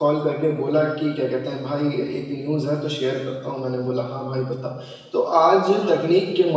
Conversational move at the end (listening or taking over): listening